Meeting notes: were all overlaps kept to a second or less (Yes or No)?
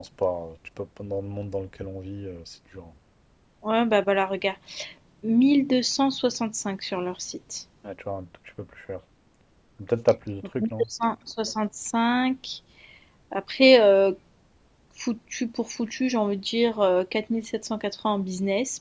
Yes